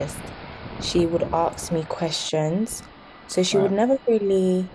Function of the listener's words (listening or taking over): listening